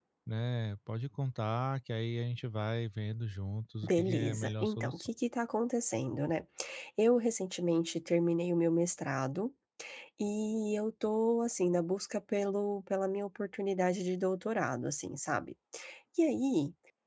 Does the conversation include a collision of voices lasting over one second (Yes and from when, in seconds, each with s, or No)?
Yes, from 3.8 s